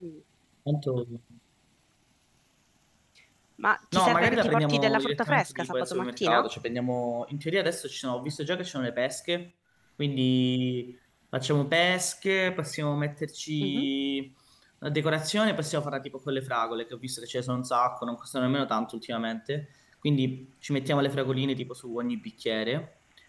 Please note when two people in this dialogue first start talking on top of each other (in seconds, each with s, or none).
3.9 s